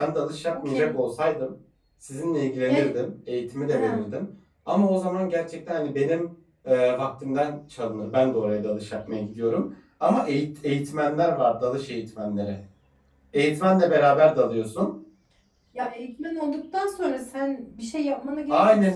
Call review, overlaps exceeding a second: none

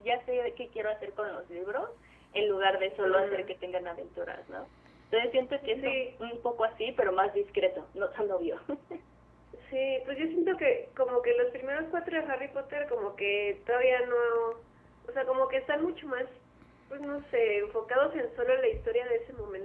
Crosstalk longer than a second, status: none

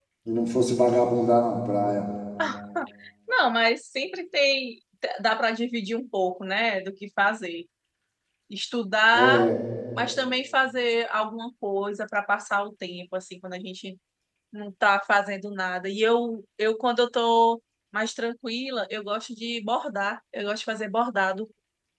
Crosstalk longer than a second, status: none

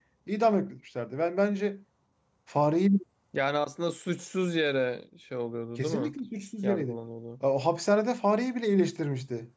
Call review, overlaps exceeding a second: none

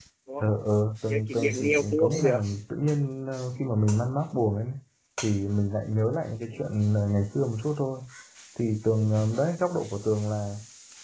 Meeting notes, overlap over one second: present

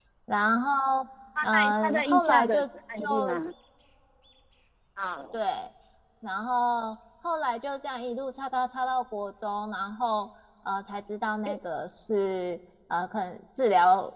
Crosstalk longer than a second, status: present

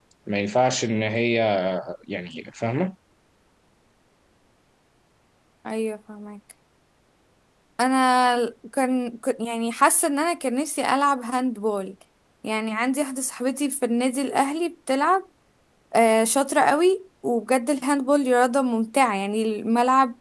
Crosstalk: none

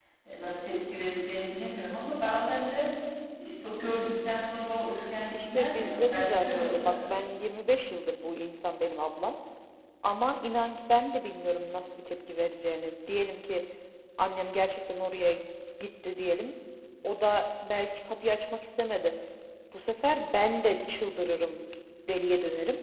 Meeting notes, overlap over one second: present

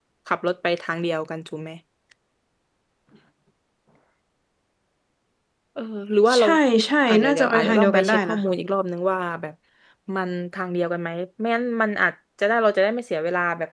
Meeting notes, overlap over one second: present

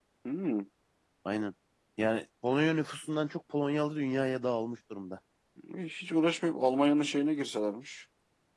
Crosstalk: none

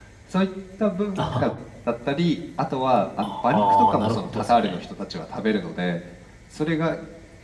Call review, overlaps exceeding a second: present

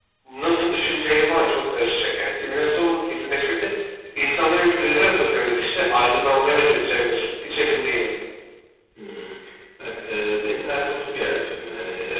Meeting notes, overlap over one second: none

